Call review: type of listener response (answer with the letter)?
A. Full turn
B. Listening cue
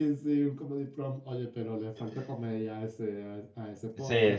A